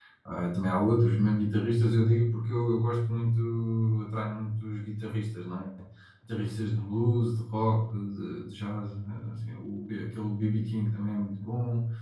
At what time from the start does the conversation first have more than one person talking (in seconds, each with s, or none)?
none